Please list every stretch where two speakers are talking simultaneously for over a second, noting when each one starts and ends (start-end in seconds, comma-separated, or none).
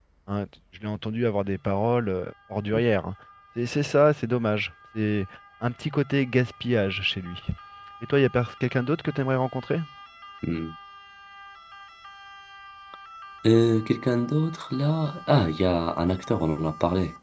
none